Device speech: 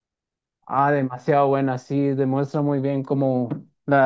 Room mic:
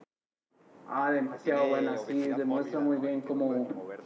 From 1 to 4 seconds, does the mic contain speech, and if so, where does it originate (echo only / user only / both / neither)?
both